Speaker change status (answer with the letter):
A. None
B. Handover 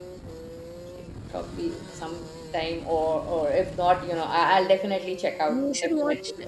B